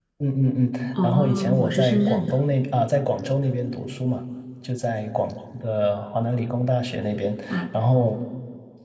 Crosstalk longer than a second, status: present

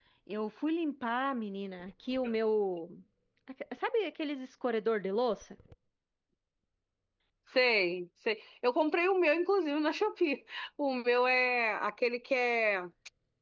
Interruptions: none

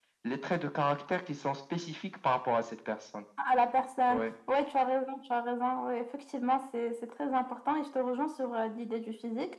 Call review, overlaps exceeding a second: none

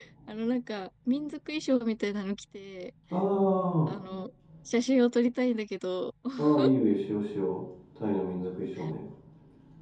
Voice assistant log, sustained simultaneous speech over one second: none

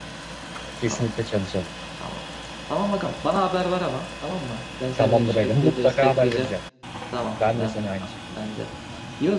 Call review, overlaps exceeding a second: present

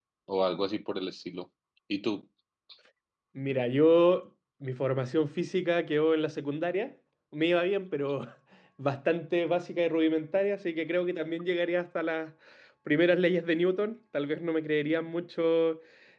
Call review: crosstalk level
none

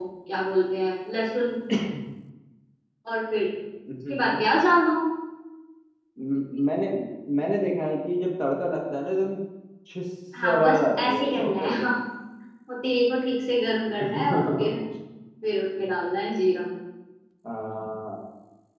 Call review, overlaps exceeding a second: present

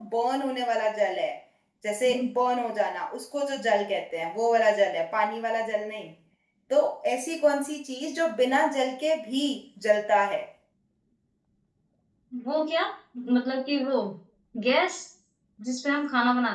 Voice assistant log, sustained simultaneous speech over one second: none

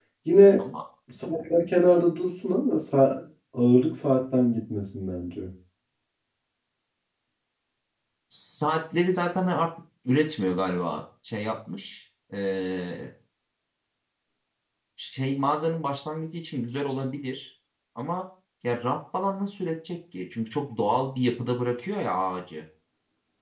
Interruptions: none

